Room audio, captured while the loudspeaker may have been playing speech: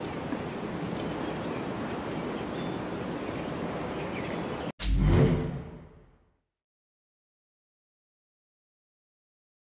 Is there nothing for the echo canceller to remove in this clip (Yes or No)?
Yes